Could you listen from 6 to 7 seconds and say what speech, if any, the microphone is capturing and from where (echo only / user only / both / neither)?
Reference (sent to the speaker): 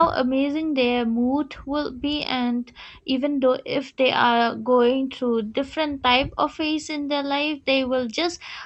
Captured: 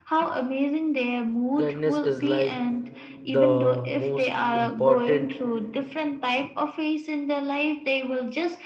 echo only